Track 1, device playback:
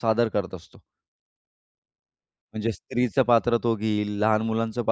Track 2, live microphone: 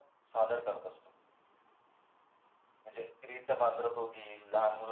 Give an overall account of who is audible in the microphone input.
echo only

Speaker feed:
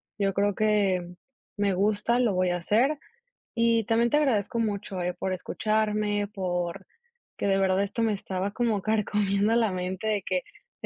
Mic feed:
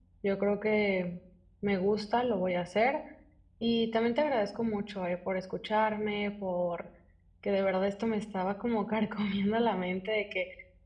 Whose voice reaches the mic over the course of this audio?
echo only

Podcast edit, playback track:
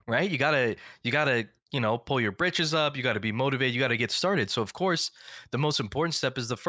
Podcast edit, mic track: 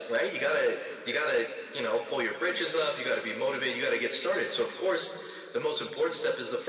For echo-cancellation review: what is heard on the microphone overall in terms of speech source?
echo only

